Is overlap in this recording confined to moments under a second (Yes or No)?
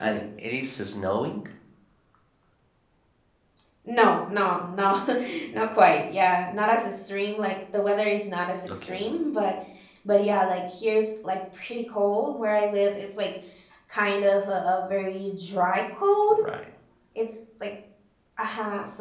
Yes